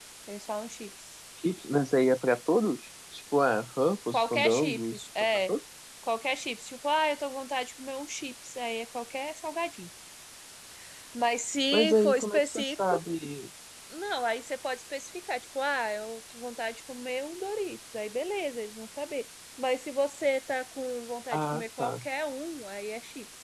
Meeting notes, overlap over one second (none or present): present